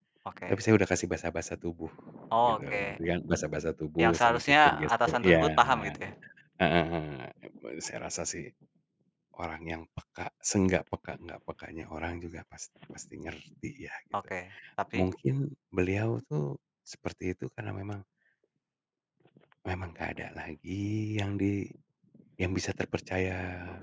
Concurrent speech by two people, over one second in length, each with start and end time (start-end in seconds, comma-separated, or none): 4.0-5.9